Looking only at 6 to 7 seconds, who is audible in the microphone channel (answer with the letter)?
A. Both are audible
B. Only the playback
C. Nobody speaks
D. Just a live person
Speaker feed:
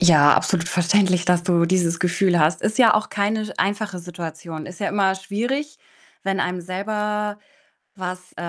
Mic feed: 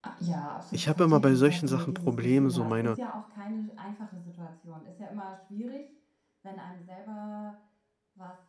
B